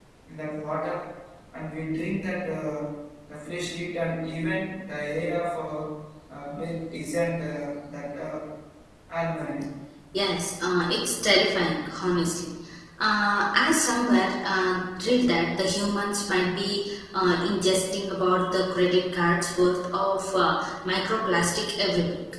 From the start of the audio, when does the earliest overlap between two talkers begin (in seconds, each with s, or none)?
none